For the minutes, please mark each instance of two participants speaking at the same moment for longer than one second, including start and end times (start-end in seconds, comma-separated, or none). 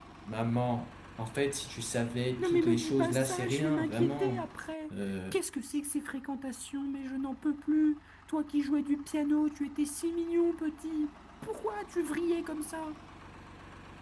2.4-4.5